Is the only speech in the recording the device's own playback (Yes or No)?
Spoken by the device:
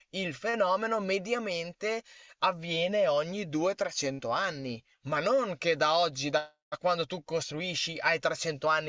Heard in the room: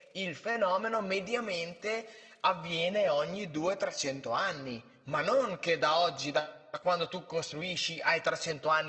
Yes